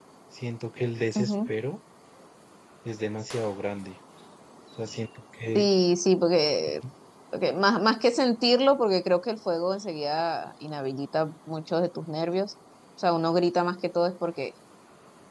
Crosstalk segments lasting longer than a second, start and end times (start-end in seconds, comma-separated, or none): none